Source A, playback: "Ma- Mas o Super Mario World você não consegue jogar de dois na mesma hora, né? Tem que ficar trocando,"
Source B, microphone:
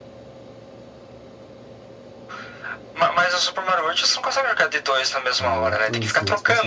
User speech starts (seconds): 5.3 s

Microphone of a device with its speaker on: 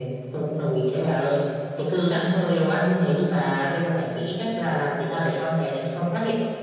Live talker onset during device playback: none

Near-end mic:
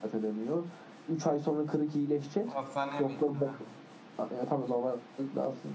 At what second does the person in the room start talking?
2.4 s

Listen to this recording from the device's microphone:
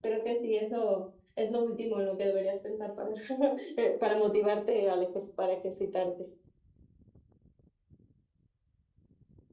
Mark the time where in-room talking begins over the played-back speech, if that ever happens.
none

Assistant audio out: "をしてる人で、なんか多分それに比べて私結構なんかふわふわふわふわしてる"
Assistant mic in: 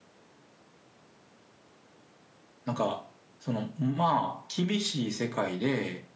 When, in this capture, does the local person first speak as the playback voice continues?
2.6 s

